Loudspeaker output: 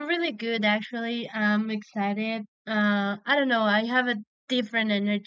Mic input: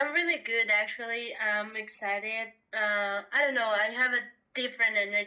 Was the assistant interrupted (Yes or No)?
No